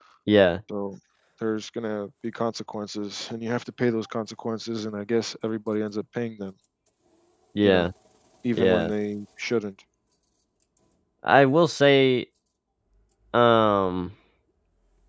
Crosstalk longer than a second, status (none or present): none